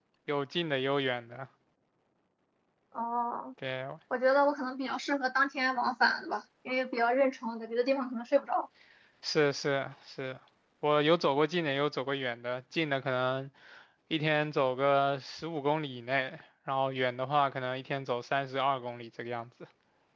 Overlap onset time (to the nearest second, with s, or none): none